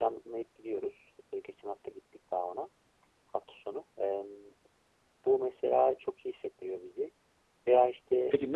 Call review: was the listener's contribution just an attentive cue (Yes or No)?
No